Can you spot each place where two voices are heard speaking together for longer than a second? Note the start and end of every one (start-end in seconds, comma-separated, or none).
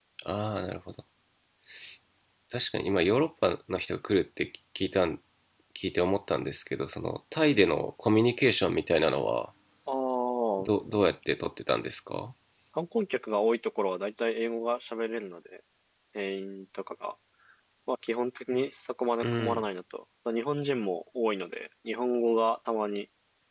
none